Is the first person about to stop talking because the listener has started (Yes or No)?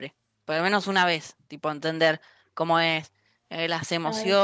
No